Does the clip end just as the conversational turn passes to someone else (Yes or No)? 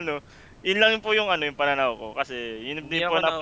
Yes